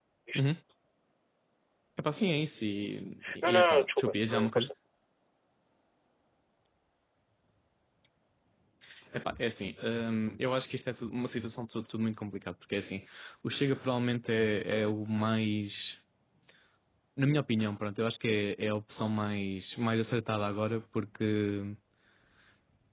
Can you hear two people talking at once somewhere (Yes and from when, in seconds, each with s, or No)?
Yes, from 3.2 s